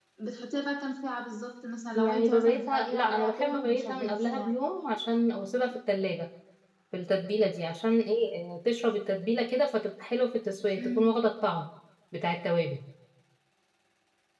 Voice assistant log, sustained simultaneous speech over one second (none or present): present